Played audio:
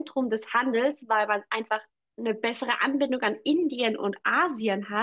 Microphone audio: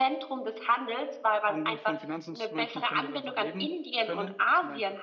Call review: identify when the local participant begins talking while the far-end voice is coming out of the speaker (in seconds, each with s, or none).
1.4 s